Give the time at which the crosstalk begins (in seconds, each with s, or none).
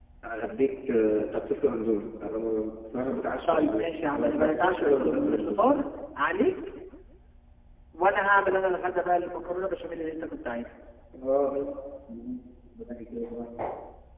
3.5 s